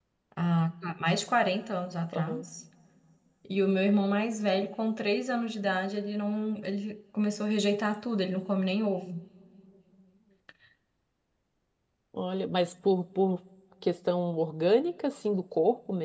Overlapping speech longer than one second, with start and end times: none

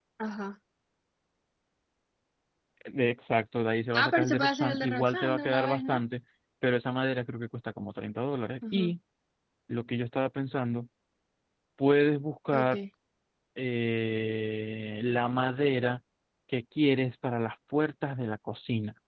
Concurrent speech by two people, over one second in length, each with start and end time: 3.9-6.0

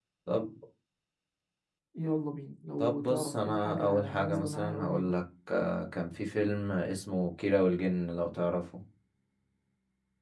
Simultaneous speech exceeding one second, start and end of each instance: 2.8-5.1

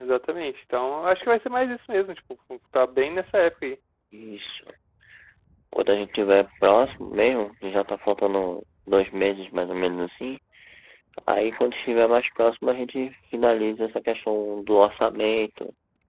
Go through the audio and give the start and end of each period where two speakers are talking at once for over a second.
none

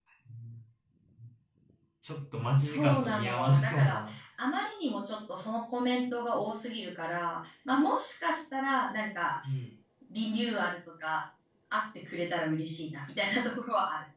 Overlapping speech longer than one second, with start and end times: 2.6-4.1

